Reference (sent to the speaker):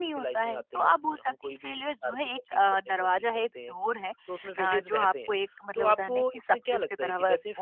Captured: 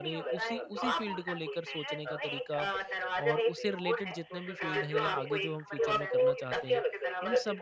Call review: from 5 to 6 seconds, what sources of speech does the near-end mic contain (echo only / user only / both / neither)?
both